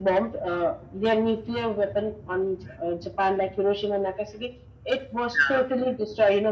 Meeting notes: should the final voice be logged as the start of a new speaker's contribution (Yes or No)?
No